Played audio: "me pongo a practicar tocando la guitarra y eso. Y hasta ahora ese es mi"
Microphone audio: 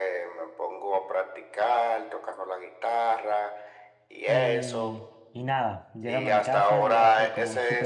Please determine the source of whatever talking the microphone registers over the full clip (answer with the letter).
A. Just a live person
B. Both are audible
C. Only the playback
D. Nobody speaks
B